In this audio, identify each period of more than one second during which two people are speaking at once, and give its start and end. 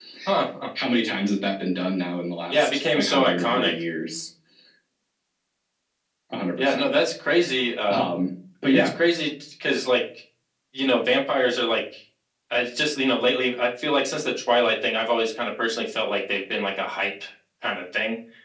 2.5-3.7

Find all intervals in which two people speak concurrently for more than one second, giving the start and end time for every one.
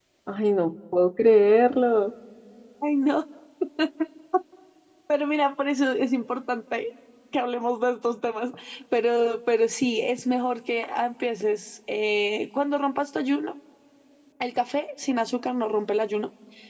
none

